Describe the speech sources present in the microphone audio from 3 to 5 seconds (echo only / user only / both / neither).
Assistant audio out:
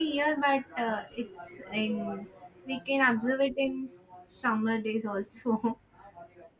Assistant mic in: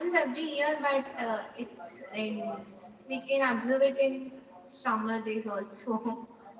echo only